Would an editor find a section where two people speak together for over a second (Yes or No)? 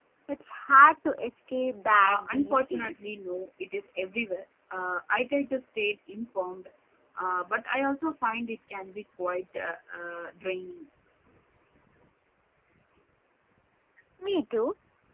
Yes